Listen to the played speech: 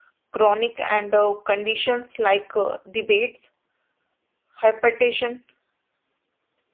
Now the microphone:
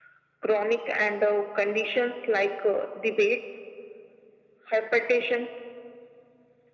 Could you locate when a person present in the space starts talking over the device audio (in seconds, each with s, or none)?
none